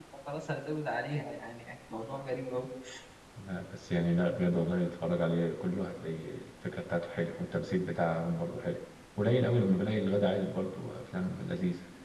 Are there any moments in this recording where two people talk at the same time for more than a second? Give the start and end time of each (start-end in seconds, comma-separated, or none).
none